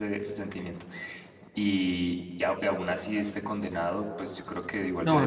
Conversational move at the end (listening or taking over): taking over